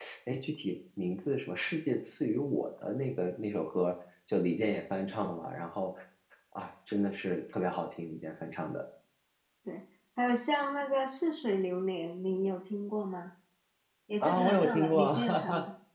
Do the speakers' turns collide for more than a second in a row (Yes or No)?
Yes